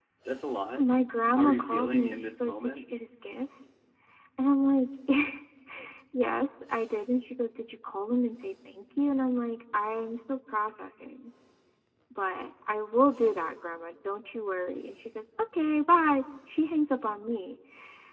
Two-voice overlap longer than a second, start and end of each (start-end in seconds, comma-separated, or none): 1.3-2.9